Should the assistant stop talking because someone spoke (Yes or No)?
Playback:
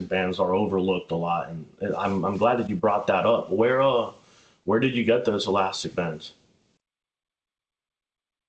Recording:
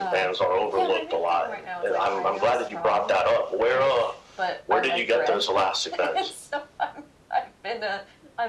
Yes